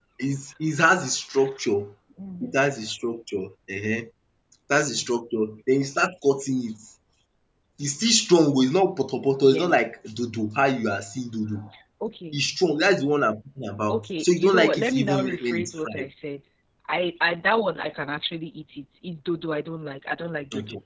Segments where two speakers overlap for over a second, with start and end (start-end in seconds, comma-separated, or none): 13.9-16.1